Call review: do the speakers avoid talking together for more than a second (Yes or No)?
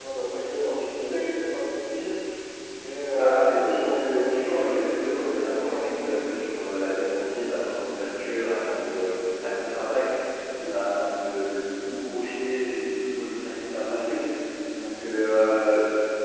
No